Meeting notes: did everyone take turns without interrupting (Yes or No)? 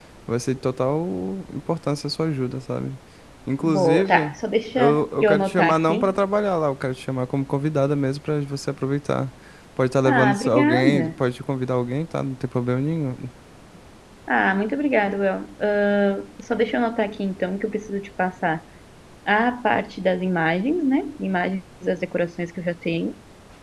No